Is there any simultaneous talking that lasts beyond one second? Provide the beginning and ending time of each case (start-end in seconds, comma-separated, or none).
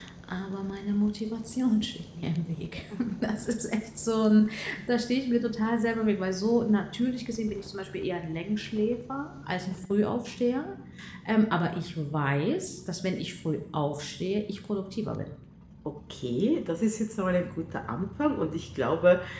none